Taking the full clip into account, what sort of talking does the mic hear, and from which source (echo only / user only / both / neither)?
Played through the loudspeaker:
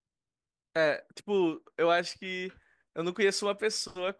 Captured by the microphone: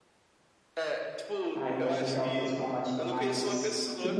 both